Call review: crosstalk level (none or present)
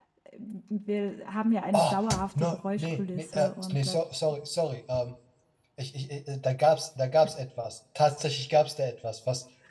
present